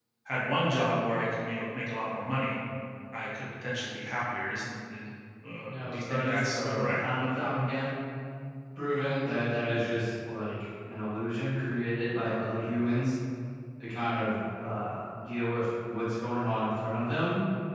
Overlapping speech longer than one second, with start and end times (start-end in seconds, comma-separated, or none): 5.6-7.0